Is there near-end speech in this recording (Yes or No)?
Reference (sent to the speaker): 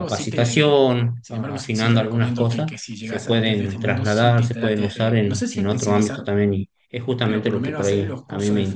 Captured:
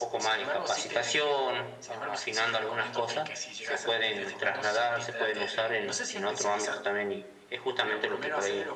No